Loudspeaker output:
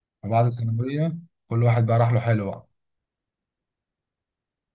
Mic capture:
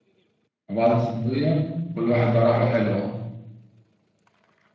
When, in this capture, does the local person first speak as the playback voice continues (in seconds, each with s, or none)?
none